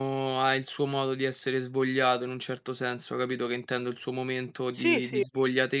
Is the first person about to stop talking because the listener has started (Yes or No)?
No